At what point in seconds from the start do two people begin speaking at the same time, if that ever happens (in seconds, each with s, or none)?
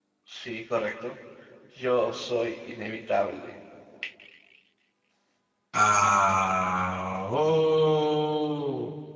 none